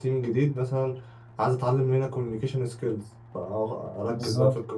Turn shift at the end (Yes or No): No